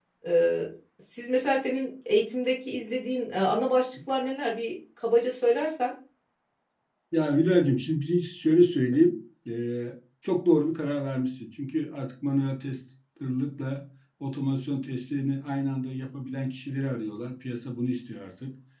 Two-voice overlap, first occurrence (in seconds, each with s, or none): none